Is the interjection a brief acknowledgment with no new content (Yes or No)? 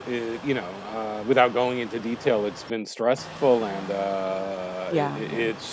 Yes